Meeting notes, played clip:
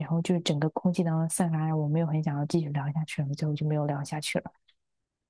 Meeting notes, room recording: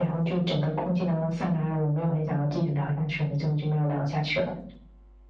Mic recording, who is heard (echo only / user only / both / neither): echo only